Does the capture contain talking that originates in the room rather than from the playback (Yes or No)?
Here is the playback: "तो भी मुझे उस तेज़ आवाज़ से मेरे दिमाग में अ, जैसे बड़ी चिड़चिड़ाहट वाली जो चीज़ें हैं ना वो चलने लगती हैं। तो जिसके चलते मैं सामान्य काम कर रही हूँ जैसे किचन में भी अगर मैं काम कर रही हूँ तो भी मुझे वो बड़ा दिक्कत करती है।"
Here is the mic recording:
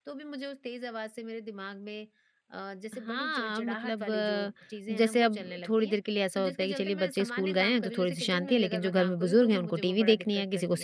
Yes